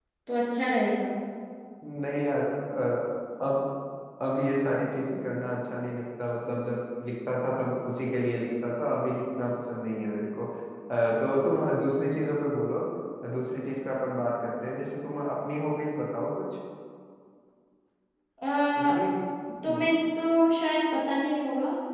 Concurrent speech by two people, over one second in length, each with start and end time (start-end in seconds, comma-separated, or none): none